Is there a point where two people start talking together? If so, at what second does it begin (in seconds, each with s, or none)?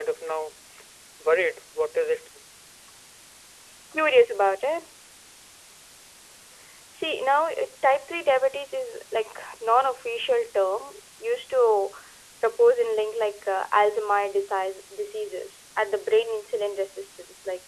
none